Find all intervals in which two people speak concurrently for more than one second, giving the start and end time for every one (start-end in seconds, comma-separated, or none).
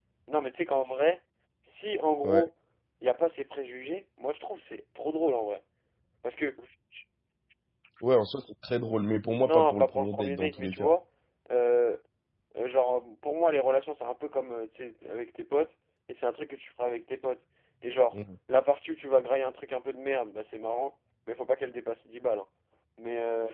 9.4-10.9